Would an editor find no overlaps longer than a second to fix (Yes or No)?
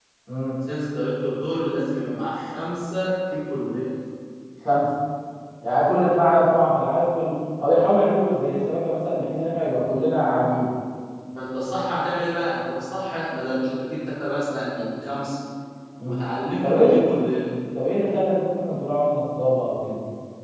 Yes